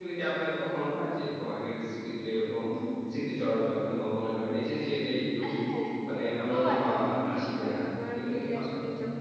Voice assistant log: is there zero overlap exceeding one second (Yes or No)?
No